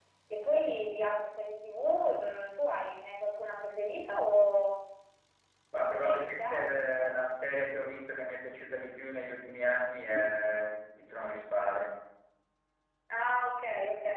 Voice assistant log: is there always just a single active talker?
No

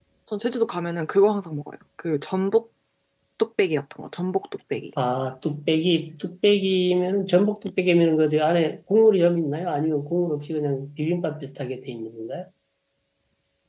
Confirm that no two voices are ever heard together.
Yes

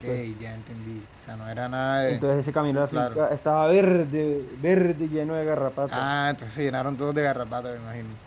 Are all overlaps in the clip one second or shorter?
Yes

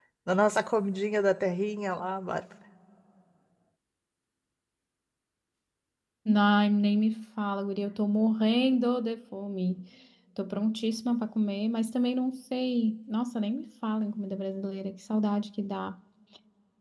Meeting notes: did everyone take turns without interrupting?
Yes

